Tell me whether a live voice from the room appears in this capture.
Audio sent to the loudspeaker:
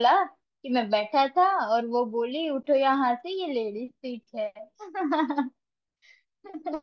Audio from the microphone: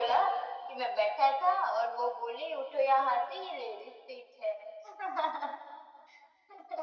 No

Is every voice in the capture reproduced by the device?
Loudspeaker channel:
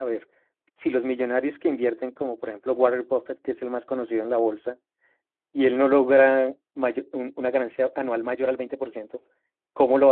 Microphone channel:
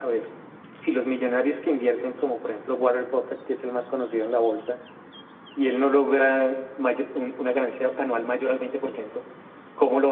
Yes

